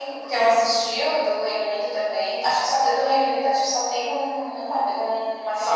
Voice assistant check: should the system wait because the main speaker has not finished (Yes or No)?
No